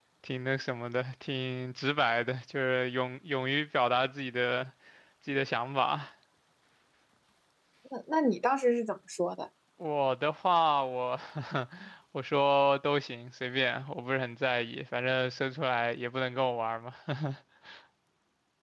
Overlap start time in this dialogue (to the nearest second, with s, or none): none